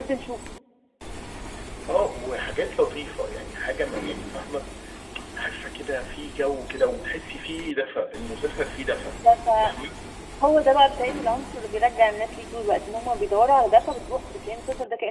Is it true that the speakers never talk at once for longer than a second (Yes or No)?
Yes